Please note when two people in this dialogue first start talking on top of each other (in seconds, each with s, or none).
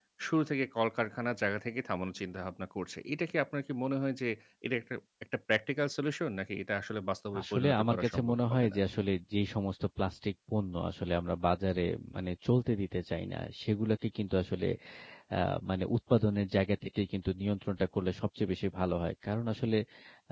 7.3 s